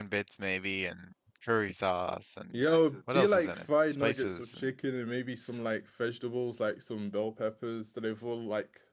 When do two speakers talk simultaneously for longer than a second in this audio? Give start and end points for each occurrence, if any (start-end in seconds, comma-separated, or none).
3.1-4.7